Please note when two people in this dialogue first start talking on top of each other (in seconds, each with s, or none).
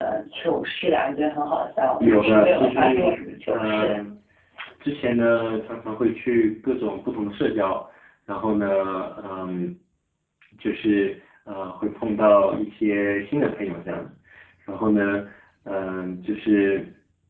2.0 s